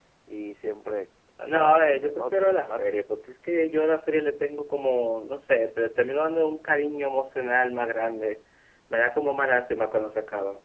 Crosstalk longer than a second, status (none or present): present